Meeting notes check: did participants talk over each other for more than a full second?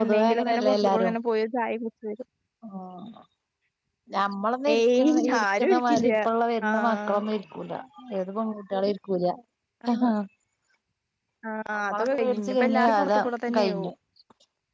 Yes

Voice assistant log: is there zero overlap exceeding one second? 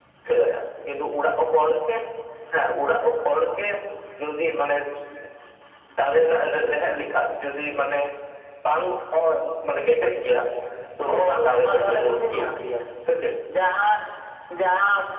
No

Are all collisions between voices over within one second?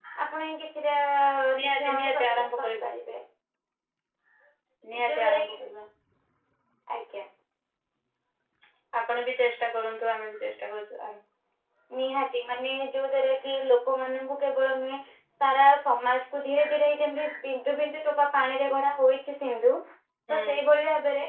No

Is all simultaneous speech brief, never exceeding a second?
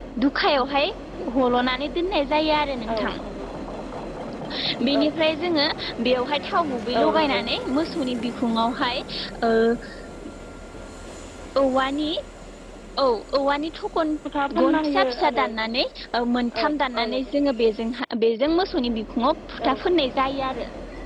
No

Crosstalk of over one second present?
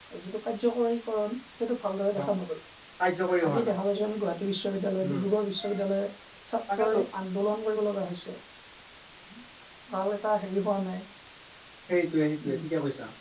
No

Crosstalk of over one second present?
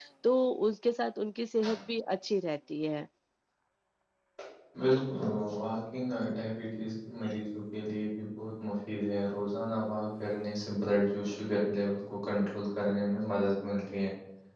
No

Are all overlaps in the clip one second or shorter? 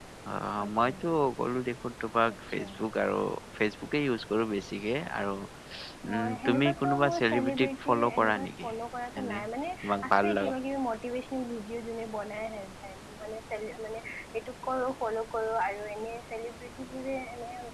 No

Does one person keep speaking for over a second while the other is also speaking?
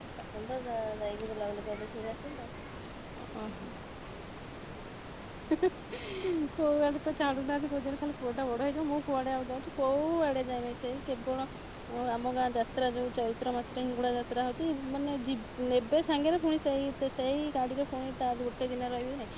No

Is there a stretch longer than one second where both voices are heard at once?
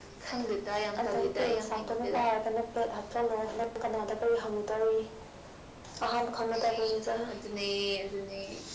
Yes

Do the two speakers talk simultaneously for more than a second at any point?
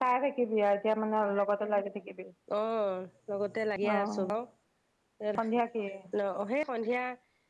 No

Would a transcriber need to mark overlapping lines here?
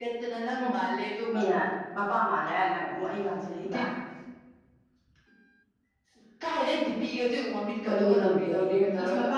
Yes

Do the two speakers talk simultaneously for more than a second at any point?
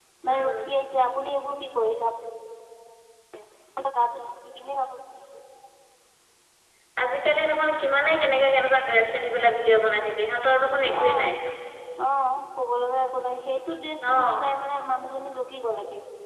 No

